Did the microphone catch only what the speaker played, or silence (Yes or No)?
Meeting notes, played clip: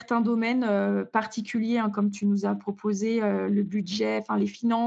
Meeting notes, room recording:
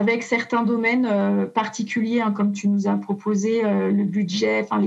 Yes